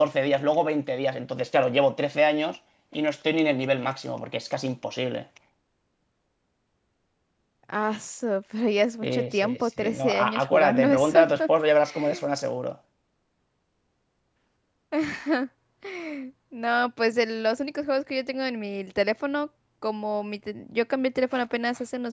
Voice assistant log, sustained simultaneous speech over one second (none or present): present